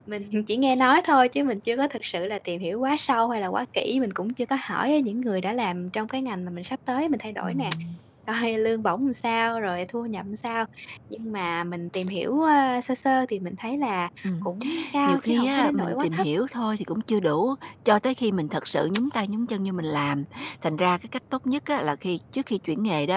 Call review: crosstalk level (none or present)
present